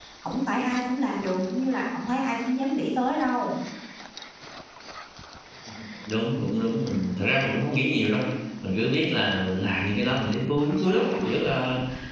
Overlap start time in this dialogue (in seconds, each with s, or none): none